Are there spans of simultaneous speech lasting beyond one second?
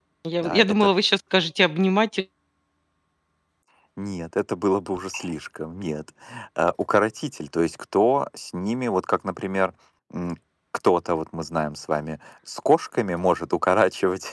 No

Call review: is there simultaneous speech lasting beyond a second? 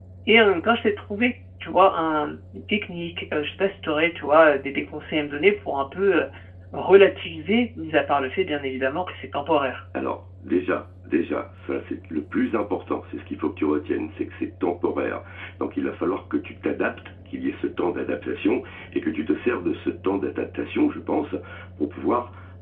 No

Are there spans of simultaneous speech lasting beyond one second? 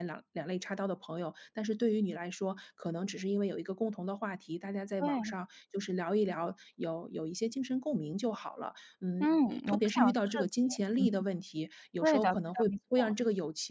Yes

